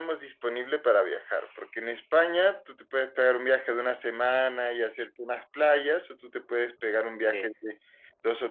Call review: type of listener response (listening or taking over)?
listening